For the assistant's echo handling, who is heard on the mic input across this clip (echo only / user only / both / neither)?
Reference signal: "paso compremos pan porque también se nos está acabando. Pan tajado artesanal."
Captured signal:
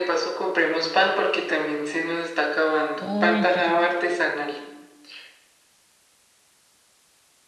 both